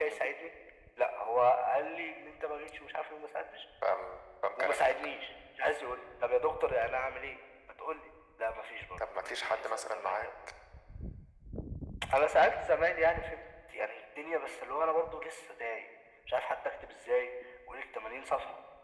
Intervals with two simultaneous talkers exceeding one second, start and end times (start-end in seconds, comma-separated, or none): 9.0-10.3